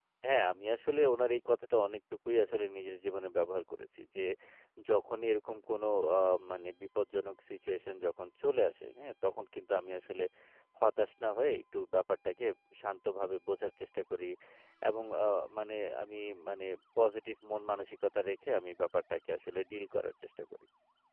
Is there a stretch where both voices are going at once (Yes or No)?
No